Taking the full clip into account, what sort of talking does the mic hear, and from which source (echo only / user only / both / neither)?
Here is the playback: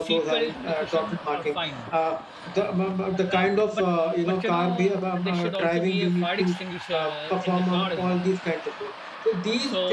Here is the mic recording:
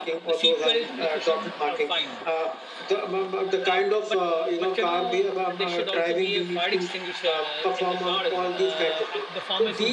both